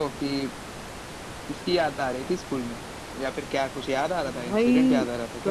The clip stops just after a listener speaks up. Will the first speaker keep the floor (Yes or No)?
No